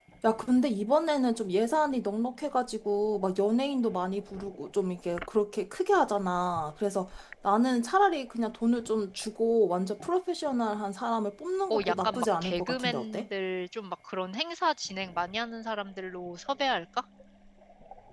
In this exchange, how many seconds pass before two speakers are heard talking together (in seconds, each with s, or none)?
11.7 s